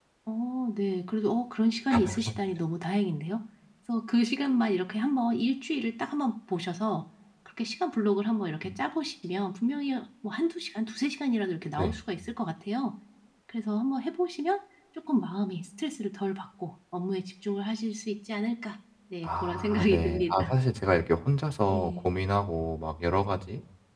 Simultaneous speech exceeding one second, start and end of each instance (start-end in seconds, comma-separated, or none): 19.2-20.5